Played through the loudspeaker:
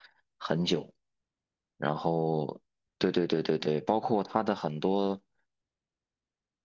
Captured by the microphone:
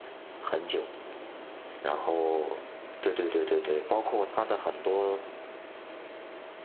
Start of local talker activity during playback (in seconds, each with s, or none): none